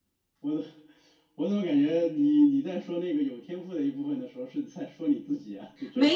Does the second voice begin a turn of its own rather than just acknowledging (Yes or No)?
Yes